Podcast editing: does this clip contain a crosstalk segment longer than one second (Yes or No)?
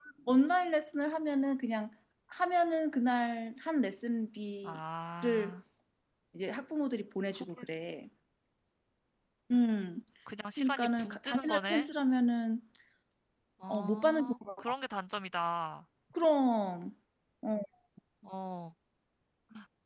Yes